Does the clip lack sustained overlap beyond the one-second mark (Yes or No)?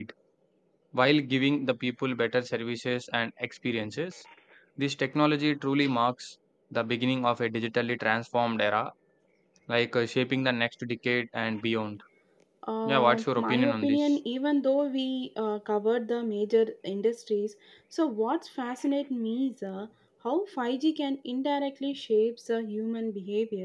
No